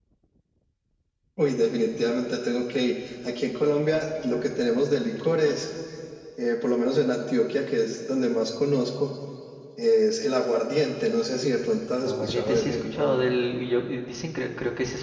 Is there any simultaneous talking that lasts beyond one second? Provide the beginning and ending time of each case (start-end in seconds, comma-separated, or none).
12.0-13.2